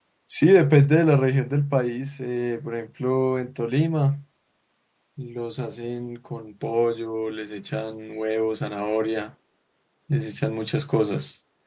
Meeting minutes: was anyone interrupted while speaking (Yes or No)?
No